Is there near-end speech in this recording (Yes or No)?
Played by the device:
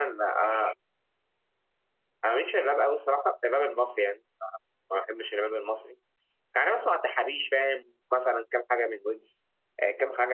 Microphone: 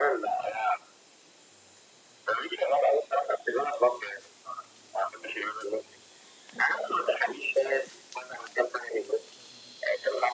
No